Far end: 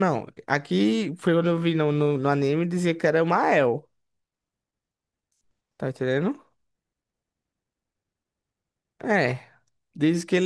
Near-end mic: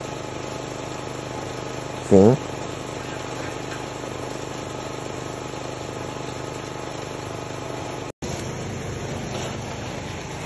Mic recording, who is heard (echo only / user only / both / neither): user only